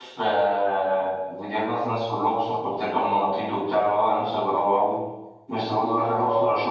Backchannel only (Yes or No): Yes